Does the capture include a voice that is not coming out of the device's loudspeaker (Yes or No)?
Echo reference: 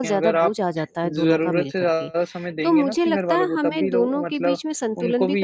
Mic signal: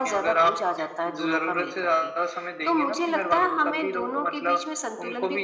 No